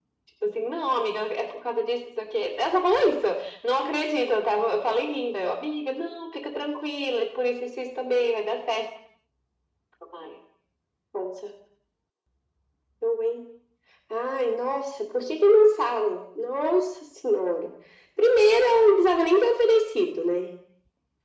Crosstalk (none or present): none